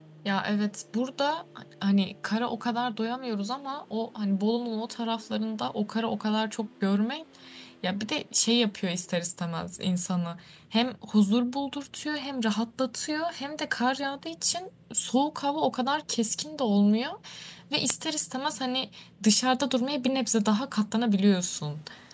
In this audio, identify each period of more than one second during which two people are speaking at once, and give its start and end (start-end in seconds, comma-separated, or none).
none